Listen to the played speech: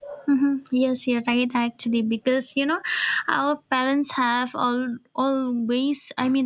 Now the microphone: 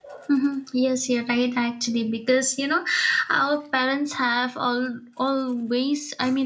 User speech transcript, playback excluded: none

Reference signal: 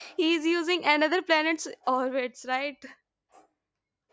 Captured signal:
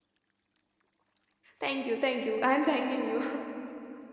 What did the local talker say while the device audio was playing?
thank you thank you i'm thanking you

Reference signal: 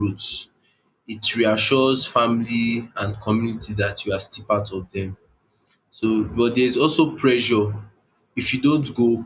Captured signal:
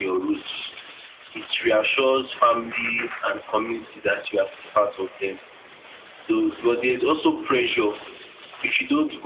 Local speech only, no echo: none

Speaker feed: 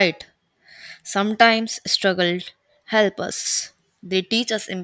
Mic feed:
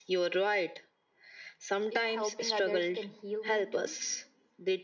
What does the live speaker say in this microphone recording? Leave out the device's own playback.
if helping others can heal me too.

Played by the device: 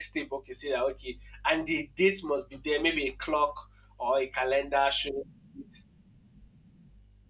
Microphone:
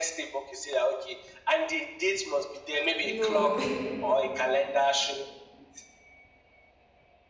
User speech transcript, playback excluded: No,

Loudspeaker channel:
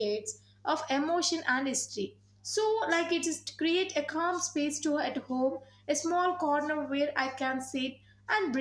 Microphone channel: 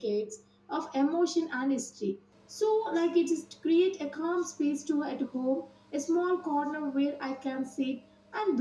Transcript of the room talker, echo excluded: none

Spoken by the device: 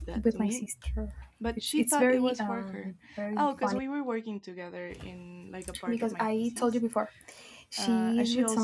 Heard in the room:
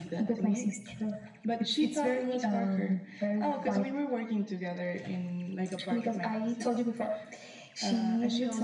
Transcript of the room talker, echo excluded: none

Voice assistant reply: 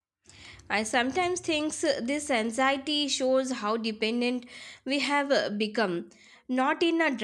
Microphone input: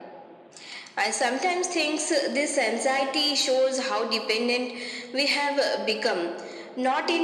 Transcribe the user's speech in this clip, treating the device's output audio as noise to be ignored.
none

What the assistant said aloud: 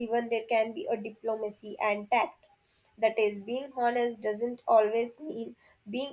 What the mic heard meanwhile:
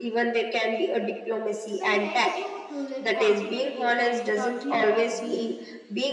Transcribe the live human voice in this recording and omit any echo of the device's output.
So it helps you to live confidently and without fear of being

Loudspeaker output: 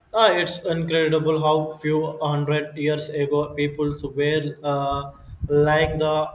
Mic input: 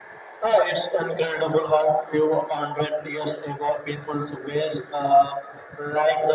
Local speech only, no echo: none

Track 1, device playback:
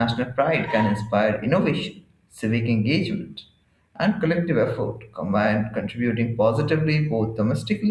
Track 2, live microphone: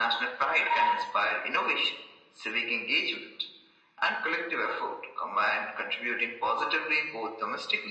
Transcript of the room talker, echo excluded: none

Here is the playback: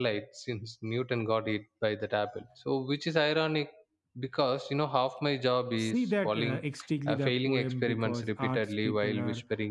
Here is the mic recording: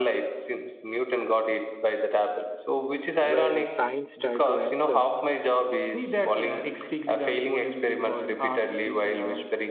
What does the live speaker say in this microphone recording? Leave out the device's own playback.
Whereas science try to answer

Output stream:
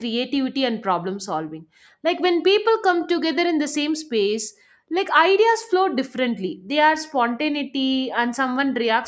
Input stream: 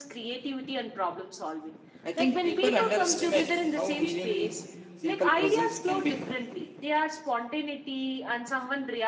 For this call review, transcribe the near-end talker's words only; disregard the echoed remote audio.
I think people underestimate how healing simple presence can be.

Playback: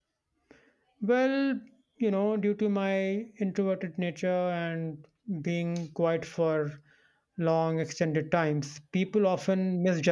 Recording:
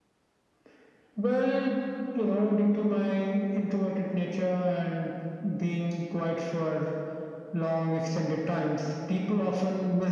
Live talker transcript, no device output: none

